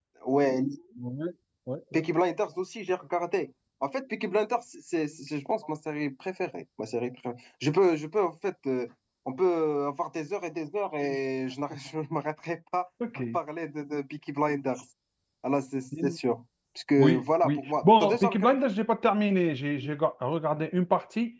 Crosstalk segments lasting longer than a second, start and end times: 17.0-18.7

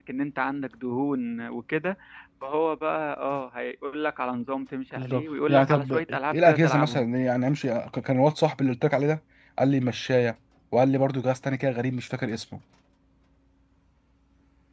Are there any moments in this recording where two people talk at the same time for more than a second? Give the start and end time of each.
5.0-7.0

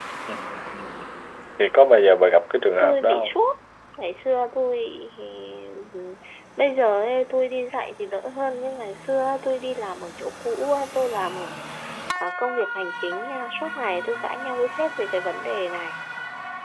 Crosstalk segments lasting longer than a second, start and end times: none

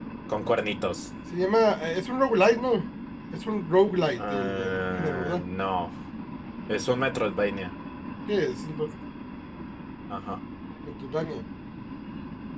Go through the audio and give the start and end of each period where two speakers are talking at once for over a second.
4.2-5.4

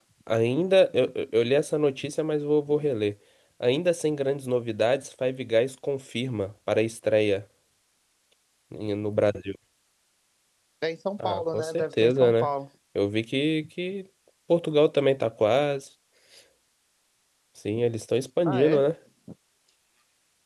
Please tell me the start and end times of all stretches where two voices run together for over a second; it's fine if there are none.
11.2-12.5

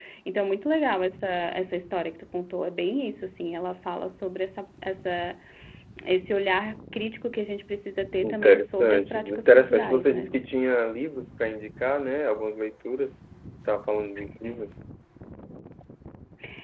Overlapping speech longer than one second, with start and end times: 8.2-10.3

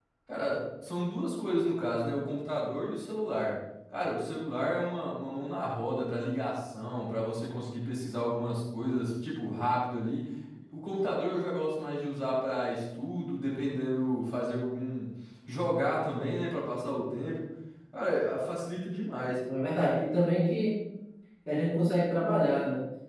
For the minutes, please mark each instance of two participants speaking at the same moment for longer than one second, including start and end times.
none

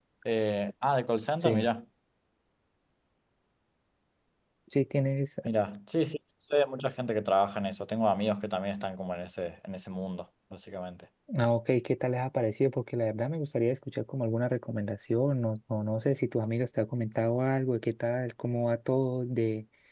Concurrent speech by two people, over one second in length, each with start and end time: none

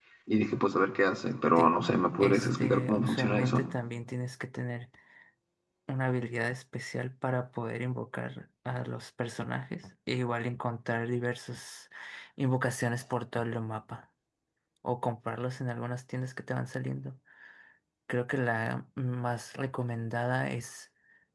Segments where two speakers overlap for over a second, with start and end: 2.2-3.7

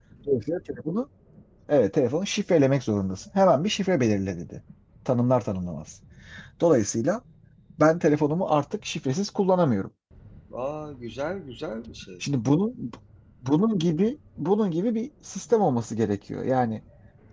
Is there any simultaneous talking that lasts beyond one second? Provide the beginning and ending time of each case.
none

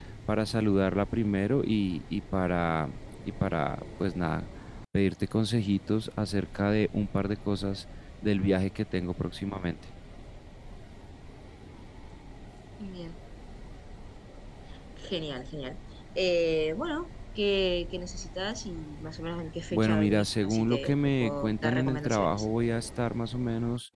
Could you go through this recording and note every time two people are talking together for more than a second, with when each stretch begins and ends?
19.7-22.4

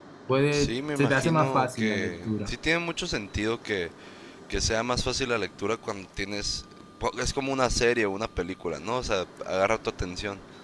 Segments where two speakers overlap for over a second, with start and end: 0.5-2.5

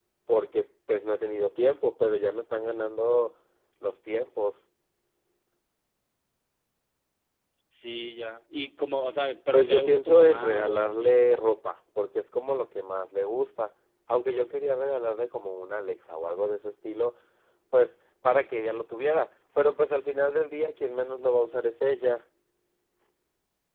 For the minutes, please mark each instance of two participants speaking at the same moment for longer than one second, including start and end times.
9.5-11.2

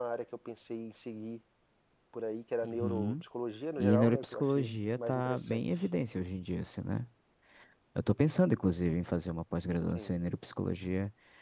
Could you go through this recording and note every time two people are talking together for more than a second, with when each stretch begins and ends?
3.8-5.6

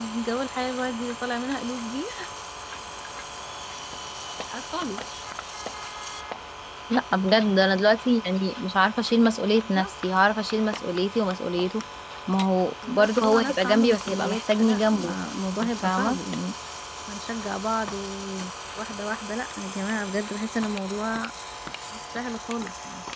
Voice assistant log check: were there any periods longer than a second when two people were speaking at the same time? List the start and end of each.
12.9-15.2

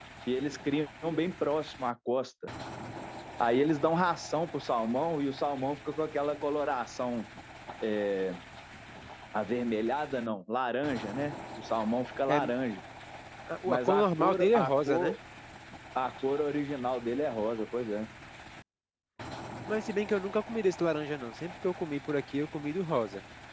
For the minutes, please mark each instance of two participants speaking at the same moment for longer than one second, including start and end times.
13.7-15.1

